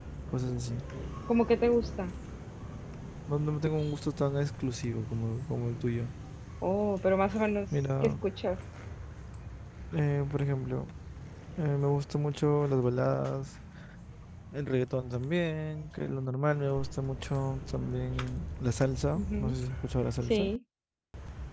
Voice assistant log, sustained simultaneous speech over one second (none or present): none